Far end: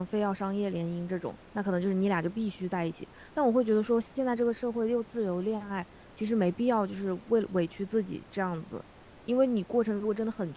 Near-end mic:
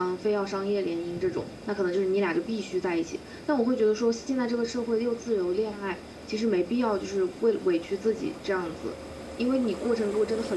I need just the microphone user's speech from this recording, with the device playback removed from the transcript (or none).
none